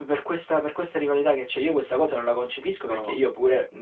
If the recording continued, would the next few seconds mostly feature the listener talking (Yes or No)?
No